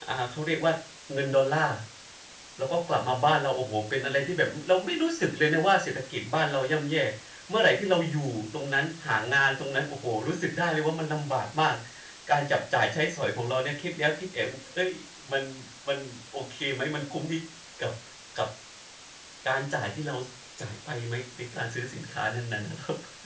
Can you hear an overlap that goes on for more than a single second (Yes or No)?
No